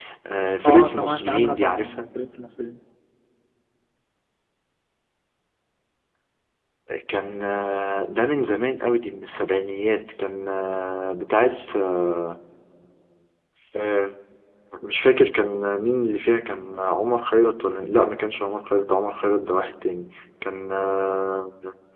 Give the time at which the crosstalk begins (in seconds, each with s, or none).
0.6 s